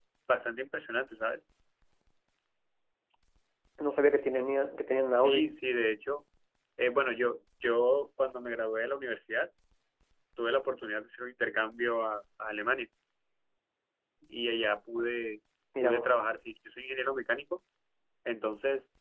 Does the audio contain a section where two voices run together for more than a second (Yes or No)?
No